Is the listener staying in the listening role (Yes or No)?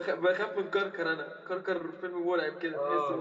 No